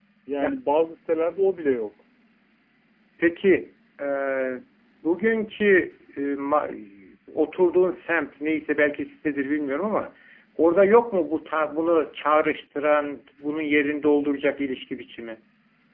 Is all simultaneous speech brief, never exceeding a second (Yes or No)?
Yes